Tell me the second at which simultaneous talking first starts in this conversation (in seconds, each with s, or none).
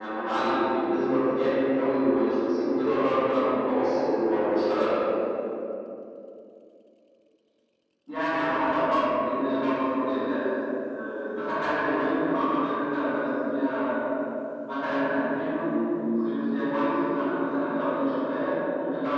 none